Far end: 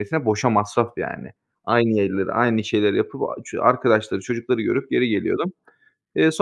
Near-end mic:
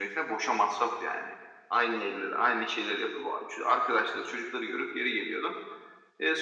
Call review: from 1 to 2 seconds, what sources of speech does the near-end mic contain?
echo only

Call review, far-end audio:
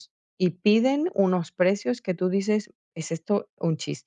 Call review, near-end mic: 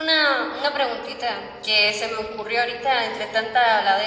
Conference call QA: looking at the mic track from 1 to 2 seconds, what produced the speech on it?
user only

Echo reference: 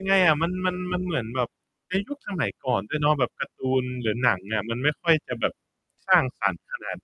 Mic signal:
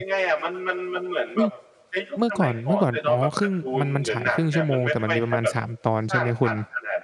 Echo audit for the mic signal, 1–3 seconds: both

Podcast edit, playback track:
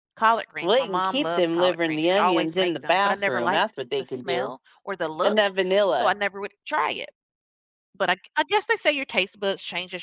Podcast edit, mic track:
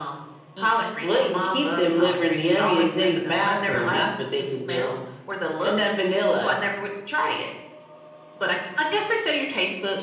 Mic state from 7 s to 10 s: echo only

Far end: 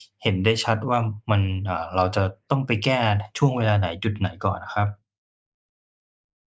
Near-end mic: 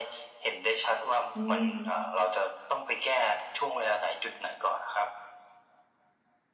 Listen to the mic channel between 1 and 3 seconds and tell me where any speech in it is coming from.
both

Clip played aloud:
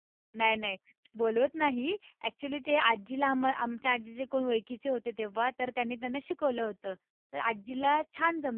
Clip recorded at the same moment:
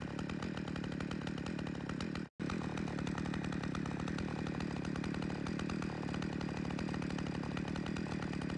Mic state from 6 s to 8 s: neither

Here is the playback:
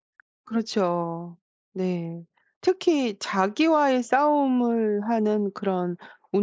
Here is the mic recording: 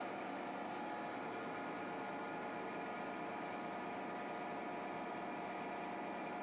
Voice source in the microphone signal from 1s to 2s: neither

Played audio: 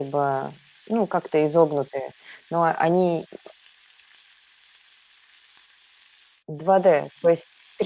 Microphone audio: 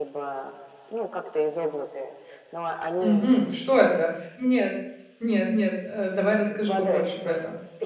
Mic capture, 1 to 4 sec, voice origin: both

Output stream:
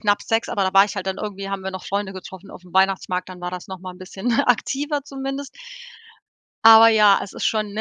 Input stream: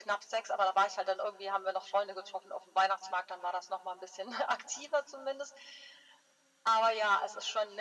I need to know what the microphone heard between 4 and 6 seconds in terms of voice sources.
echo only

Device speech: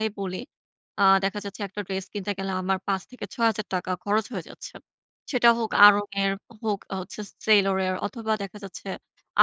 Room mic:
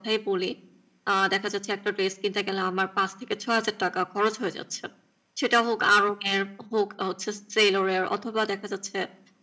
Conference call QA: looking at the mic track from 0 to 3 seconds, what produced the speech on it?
echo only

